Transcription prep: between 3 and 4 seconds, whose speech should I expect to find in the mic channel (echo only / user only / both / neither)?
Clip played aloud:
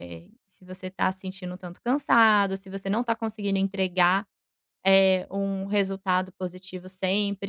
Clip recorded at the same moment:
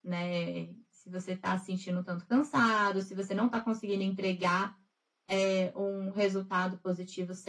echo only